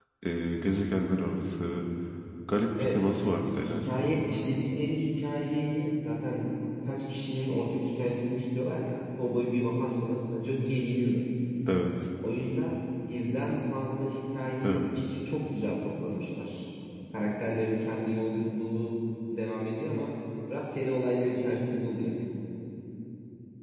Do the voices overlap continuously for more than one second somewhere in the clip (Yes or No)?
No